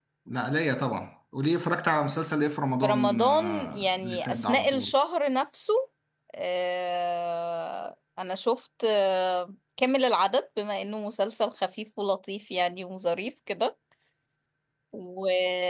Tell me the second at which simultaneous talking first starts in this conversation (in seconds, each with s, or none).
2.8 s